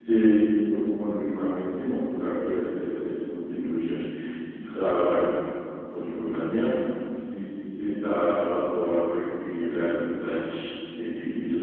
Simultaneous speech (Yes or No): No